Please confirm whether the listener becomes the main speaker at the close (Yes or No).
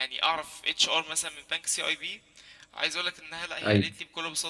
No